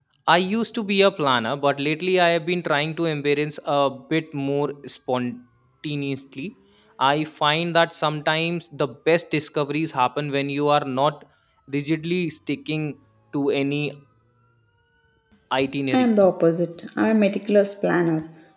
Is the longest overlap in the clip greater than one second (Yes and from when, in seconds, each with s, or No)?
No